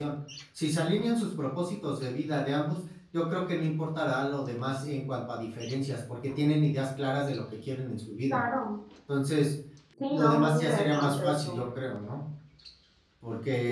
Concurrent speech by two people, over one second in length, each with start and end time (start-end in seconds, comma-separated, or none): 10.1-11.6